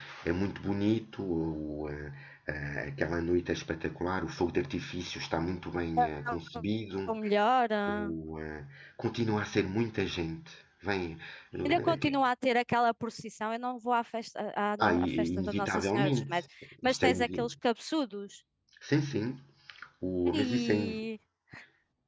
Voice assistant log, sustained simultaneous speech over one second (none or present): present